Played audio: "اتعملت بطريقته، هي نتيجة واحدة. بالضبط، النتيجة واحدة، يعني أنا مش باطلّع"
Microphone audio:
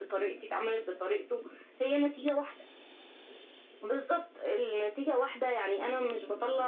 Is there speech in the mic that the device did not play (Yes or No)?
No